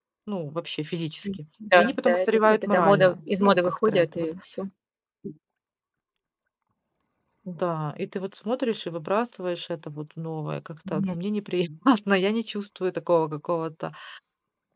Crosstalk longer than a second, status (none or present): present